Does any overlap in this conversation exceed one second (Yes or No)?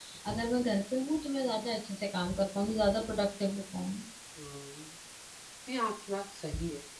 No